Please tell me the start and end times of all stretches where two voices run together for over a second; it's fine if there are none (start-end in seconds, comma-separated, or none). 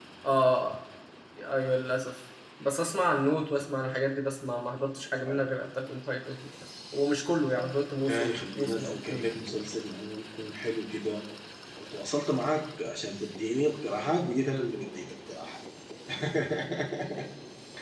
8.1-9.3